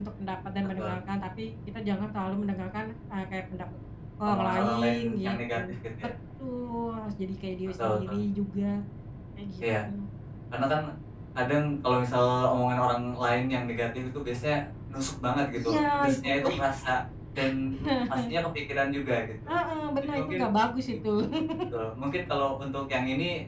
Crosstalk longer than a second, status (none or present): present